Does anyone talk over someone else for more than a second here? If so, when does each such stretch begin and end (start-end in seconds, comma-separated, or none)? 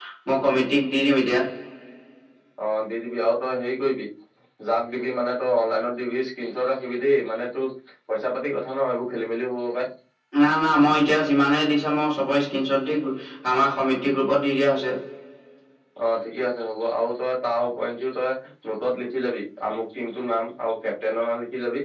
none